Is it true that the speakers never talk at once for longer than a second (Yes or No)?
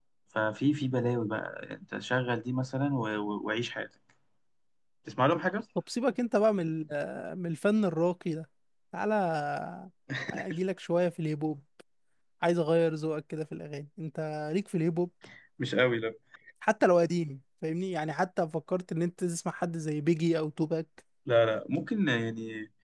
Yes